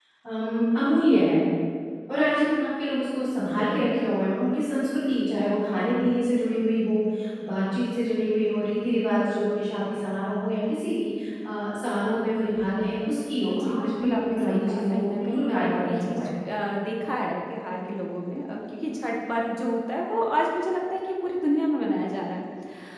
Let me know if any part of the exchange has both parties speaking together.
Yes, from 13.5 s

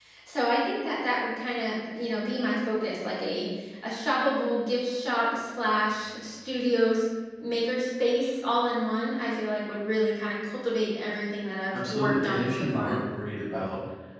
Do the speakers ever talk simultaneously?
Yes, from 11.7 s

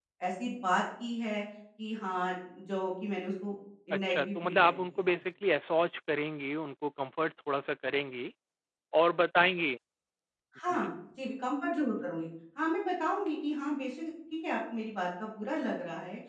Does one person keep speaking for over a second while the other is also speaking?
Yes, from 3.9 s

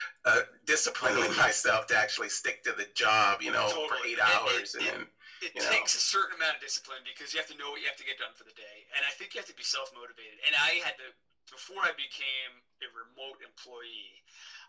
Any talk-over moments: Yes, from 3.7 s

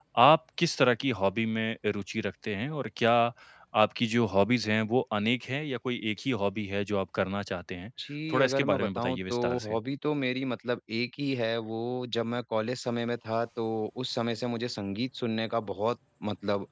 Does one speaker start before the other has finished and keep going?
Yes, from 8.3 s

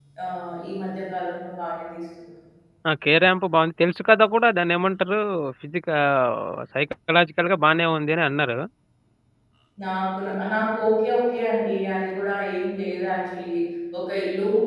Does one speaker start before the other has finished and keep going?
No

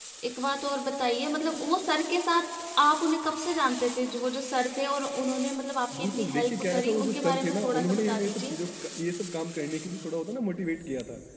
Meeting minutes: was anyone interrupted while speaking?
Yes, from 5.9 s

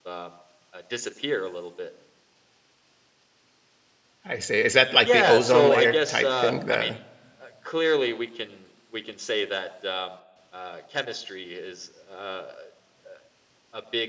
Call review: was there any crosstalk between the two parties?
Yes, from 5.0 s

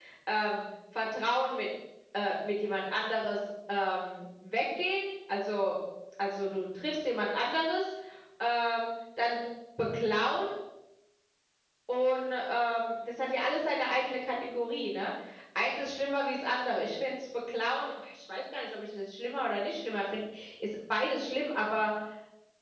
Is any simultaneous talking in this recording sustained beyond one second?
No

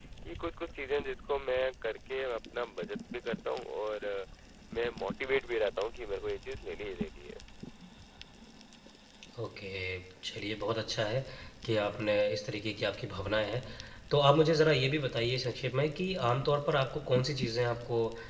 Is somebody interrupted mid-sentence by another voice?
No

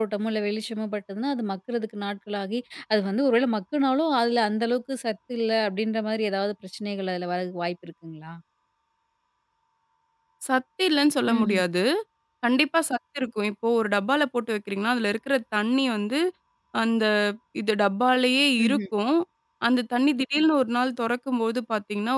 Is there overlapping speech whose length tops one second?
No

